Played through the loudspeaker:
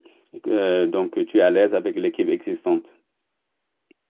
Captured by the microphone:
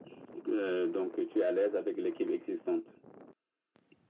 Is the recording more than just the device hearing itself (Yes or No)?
No